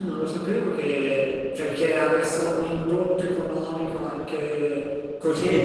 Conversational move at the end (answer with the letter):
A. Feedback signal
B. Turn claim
B